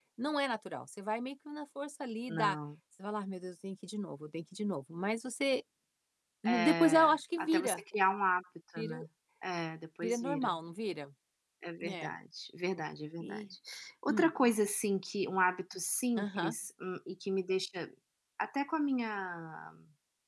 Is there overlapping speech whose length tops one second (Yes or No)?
Yes